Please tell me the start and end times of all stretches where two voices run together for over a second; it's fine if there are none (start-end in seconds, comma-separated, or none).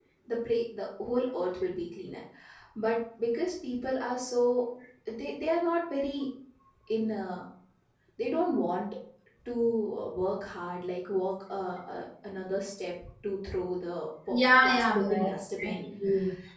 14.3-15.8